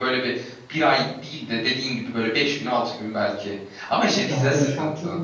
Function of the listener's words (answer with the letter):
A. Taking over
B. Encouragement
A